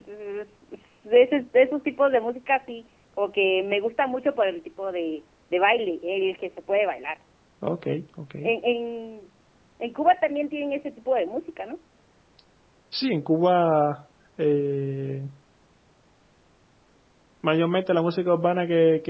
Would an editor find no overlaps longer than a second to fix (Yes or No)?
Yes